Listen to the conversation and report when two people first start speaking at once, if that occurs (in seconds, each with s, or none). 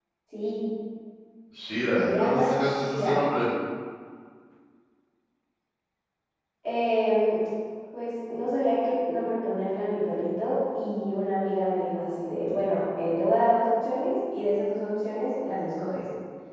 2.0 s